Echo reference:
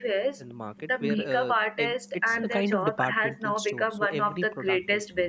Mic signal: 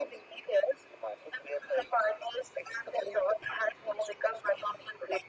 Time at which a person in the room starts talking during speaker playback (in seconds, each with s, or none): none